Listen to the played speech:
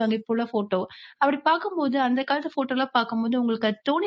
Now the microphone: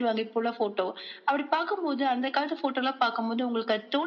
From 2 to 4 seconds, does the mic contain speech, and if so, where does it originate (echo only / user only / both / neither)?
echo only